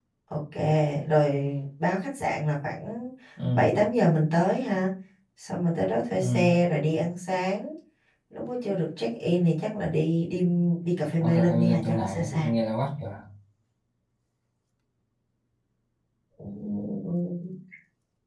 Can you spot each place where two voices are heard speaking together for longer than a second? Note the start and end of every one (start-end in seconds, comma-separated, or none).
11.2-12.5